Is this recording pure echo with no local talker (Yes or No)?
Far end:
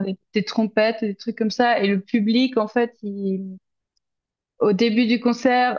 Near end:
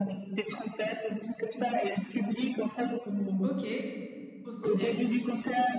No